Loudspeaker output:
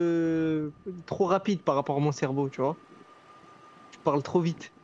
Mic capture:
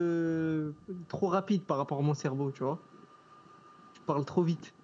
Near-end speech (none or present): none